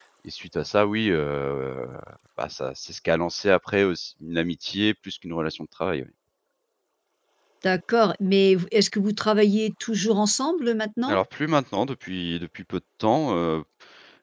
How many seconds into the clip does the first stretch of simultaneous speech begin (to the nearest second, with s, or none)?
none